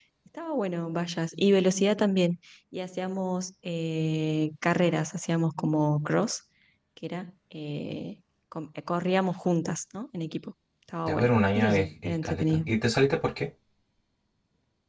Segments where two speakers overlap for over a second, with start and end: 11.1-12.7

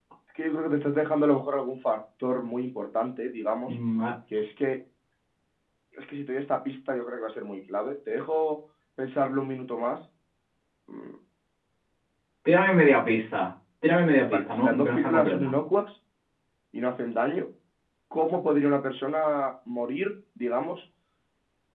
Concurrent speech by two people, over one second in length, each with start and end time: 14.3-15.5

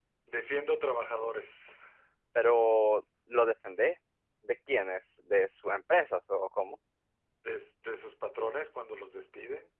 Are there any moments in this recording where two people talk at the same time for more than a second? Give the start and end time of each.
none

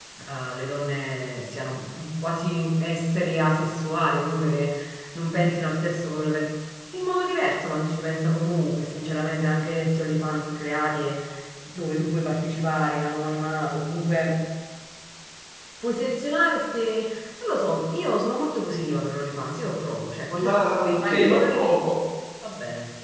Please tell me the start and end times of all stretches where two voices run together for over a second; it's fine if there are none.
20.4-21.9

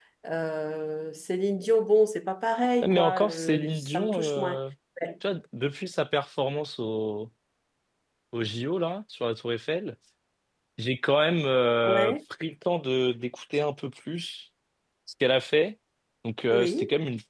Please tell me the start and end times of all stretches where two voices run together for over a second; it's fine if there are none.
2.8-4.6

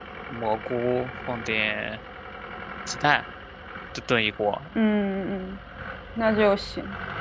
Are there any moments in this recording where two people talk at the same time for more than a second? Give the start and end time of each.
none

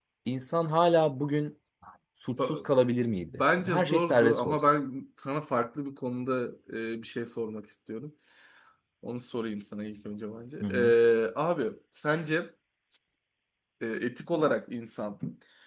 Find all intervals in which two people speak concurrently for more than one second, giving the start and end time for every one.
3.3-4.6

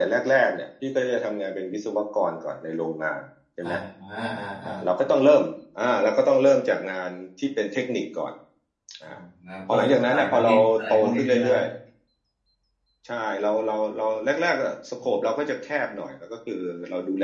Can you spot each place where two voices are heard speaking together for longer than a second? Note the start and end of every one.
9.7-11.5

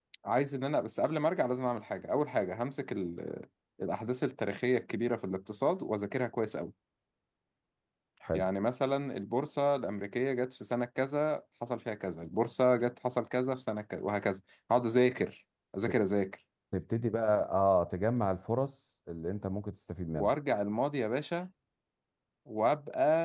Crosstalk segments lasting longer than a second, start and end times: none

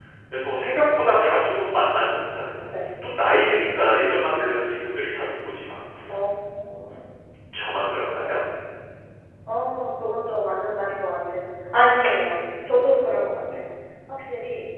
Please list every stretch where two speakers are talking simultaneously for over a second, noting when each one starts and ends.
none

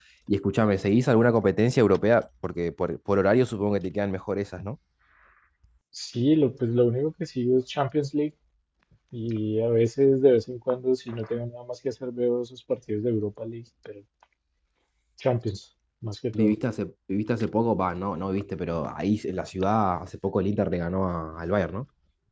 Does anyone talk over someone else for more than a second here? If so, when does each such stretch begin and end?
none

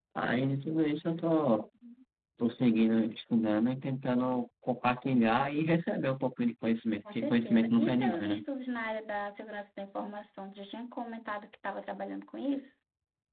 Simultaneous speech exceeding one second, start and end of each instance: 7.2-8.4

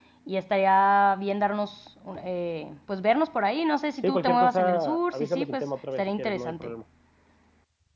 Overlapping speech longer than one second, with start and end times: 4.0-6.7

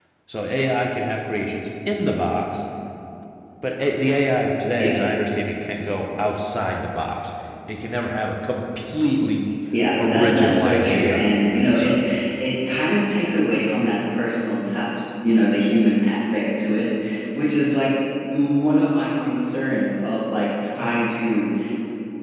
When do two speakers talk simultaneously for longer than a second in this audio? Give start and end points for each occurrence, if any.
10.0-12.0

